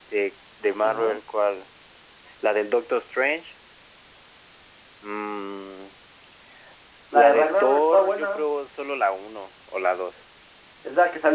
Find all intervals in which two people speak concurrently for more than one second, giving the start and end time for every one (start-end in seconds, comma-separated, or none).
7.1-8.4